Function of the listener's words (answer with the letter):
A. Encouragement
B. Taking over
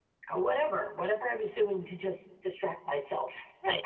B